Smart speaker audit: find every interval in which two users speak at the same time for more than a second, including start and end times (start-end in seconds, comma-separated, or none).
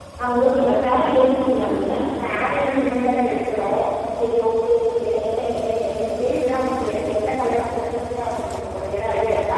none